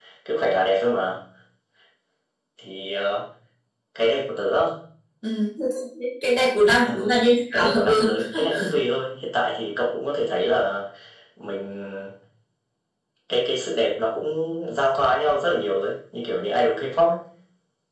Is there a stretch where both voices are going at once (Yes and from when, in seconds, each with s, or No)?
Yes, from 6.8 s